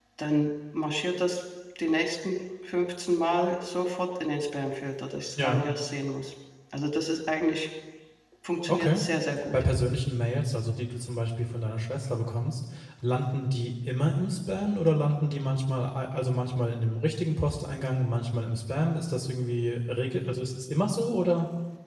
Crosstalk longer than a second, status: none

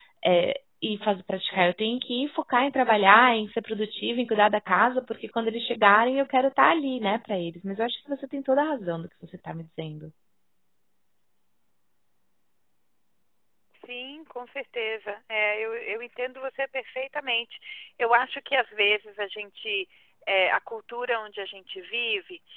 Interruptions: none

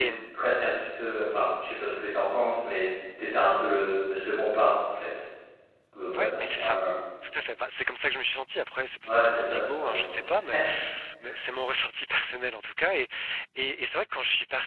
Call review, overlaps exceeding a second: present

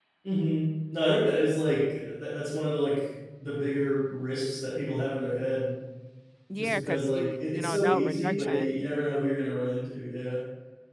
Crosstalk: present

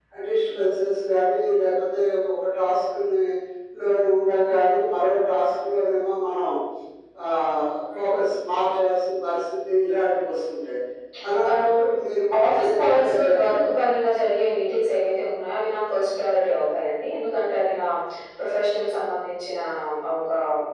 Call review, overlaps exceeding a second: present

